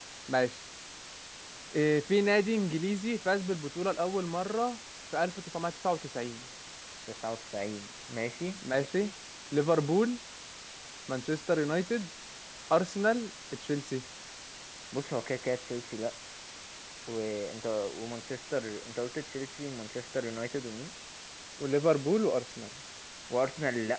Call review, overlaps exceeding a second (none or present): none